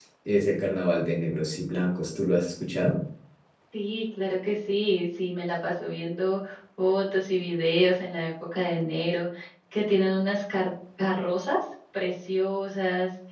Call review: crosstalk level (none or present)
none